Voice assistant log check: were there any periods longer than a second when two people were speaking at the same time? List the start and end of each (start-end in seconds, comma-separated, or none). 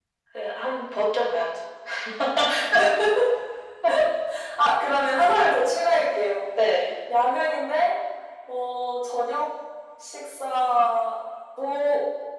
none